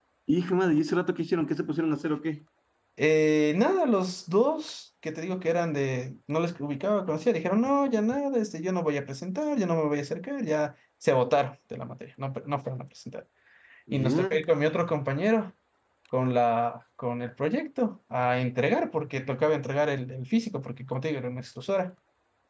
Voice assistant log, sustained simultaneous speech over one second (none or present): none